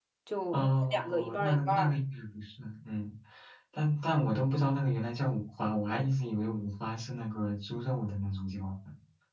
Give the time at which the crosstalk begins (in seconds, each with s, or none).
0.5 s